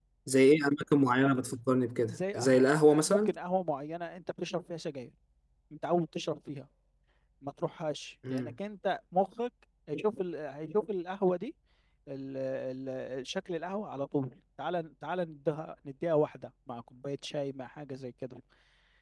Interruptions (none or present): present